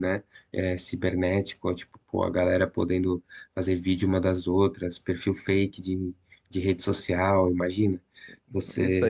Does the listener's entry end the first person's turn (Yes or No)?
Yes